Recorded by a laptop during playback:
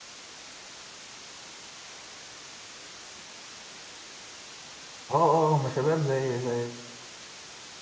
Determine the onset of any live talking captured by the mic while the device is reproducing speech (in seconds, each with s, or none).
5.1 s